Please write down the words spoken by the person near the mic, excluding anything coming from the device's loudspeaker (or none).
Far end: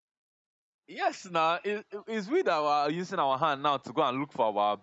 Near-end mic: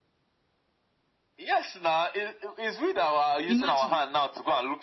Imagine.